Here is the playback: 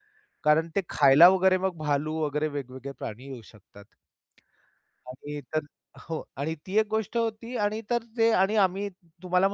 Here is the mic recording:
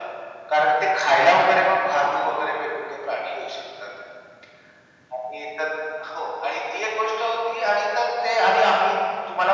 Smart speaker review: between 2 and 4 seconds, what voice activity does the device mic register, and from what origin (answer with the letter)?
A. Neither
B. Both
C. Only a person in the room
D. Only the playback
D